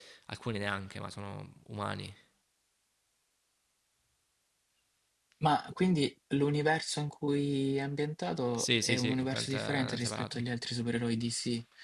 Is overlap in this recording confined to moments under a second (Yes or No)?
No